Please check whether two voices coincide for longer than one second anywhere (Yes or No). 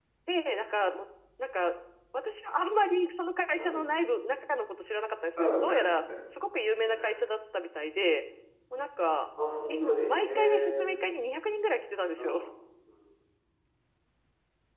Yes